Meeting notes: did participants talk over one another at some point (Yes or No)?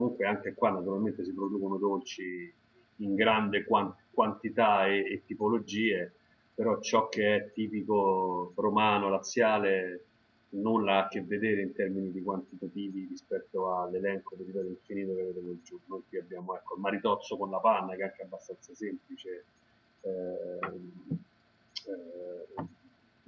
No